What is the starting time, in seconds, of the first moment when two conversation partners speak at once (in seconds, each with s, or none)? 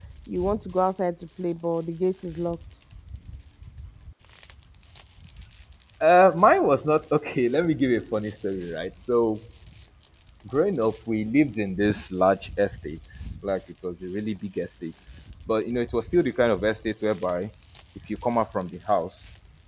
none